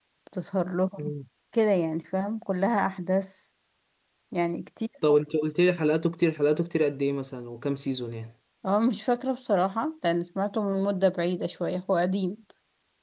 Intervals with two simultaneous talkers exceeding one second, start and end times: none

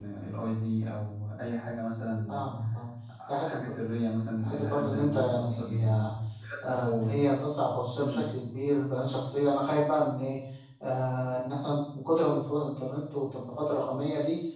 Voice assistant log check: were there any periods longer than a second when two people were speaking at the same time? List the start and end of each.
4.4-5.9

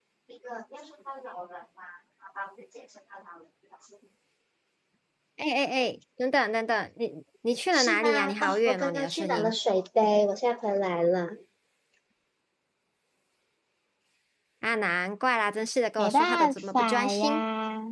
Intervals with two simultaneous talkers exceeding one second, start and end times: 7.7-9.6, 16.0-17.4

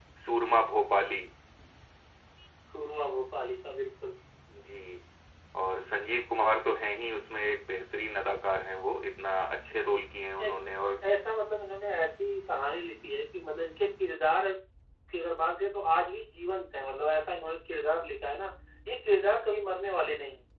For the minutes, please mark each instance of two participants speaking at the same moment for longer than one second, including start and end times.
none

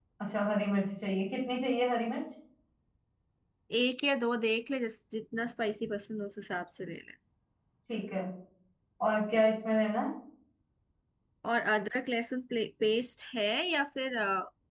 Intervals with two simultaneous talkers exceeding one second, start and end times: none

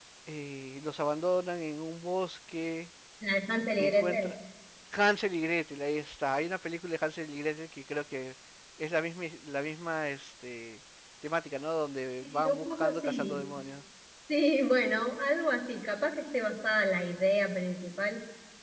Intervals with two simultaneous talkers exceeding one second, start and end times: 12.2-13.4

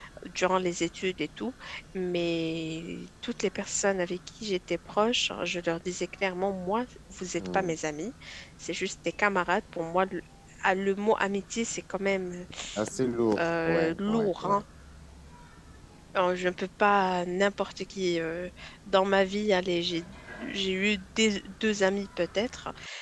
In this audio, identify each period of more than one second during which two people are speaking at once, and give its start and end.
13.4-14.6

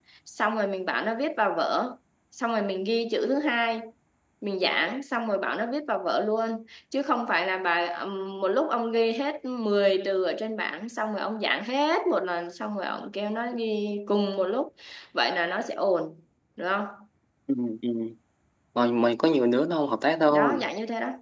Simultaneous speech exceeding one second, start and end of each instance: none

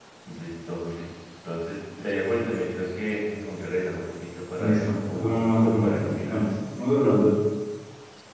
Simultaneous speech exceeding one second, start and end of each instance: 4.6-6.4

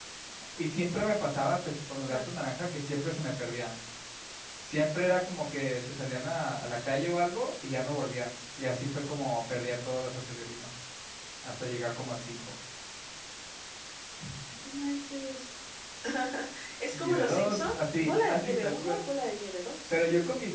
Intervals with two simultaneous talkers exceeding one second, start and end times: 16.9-19.0

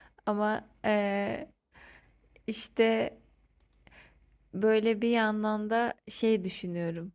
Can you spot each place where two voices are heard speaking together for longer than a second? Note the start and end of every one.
none

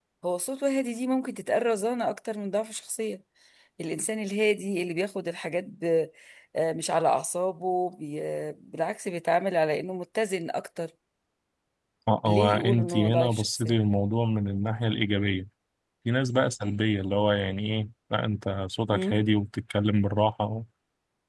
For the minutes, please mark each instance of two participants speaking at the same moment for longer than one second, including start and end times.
12.2-13.7

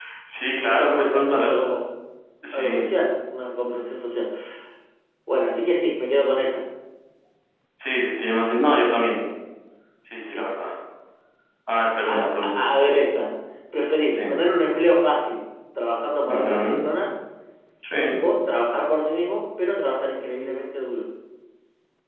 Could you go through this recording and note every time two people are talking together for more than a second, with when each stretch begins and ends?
0.5-1.7

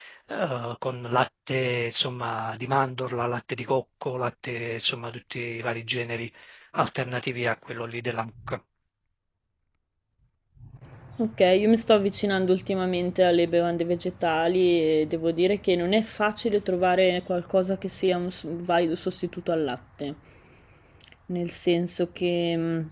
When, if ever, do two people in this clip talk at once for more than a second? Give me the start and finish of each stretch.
none

